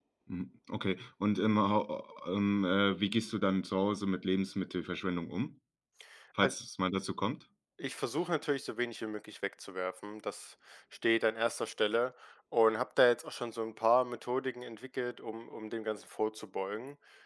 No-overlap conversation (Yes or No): Yes